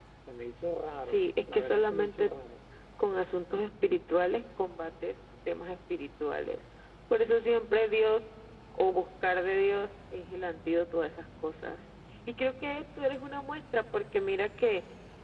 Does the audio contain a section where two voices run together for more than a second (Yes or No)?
Yes